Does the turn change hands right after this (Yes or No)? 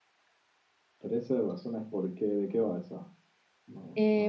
Yes